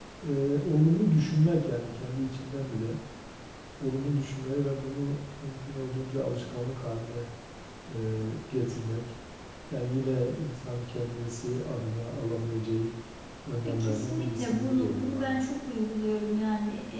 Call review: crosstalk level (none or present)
present